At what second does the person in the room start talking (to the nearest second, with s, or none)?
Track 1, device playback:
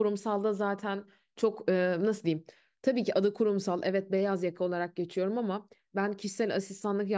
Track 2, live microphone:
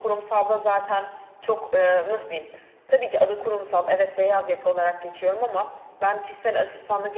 none